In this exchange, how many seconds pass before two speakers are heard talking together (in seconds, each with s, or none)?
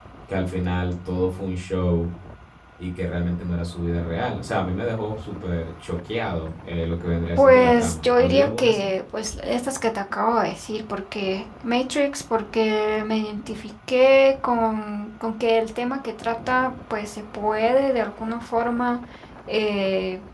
7.4 s